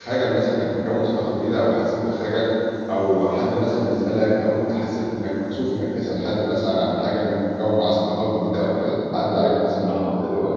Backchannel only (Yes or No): No